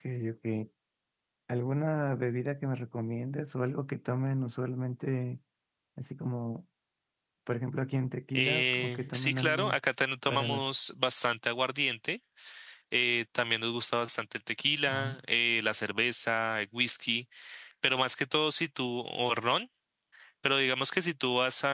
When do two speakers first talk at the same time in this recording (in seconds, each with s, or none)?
8.3 s